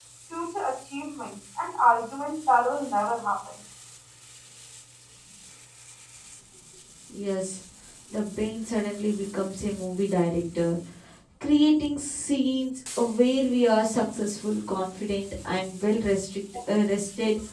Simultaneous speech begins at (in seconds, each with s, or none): none